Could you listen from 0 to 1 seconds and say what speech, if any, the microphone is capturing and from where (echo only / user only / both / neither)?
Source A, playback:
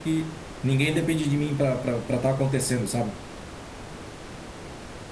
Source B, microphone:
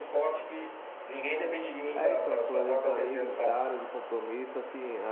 echo only